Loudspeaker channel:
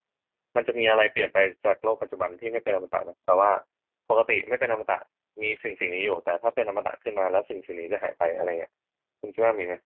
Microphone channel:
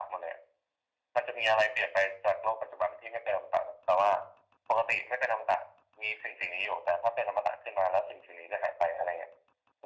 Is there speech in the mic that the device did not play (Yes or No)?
No